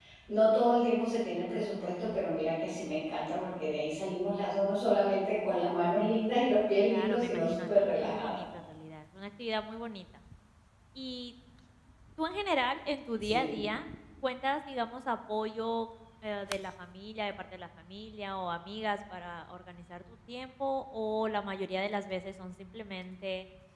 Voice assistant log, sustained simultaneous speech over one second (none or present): present